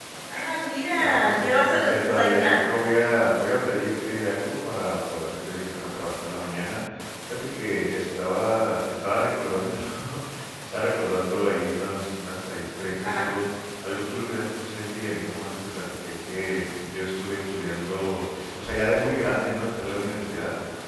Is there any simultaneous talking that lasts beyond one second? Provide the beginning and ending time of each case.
1.0-2.6

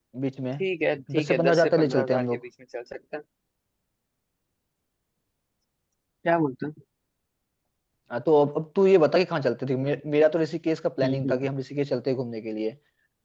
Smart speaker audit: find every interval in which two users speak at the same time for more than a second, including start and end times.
1.1-2.4

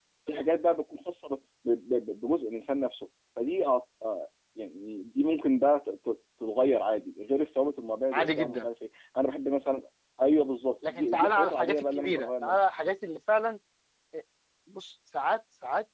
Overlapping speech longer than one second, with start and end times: 10.9-12.6

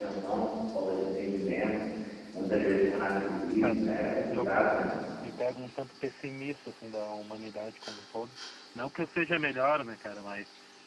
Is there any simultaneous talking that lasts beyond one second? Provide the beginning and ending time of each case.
3.0-4.7

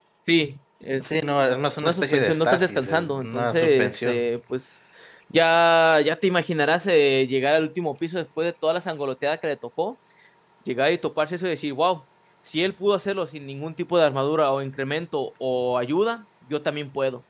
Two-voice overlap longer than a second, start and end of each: 1.8-4.3

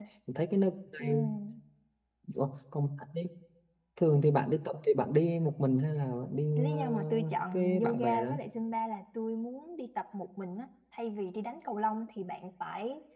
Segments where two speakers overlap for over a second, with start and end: 6.6-8.3

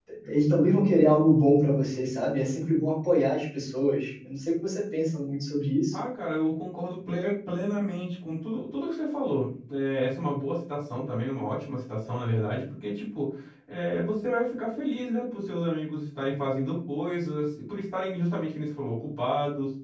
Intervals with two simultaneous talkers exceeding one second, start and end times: none

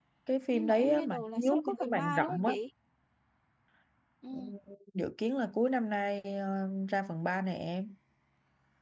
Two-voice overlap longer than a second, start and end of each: 0.5-2.5

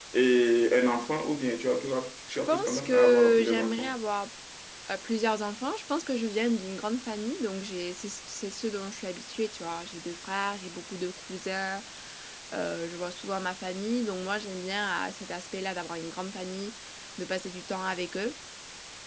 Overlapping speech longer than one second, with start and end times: 2.3-3.9

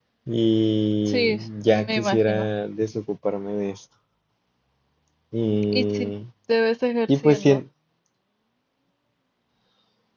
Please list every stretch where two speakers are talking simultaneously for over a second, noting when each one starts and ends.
1.1-2.5

